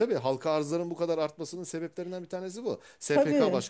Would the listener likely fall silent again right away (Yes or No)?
Yes